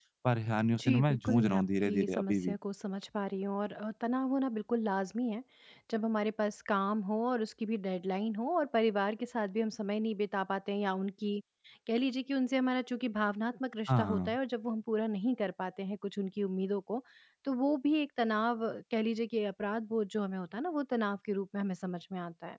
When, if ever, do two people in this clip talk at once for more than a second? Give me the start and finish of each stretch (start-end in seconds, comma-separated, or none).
0.8-2.6